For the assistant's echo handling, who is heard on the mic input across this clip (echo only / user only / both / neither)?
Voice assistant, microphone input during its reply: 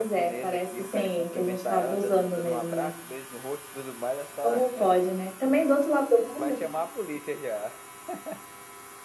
both